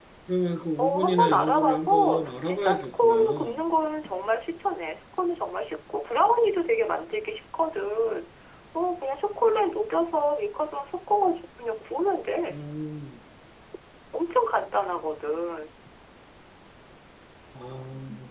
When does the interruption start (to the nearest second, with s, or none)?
1 s